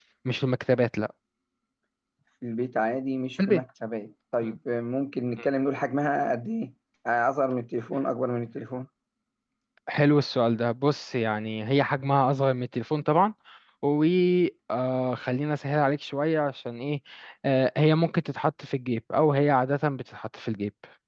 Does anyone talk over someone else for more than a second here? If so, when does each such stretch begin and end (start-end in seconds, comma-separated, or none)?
none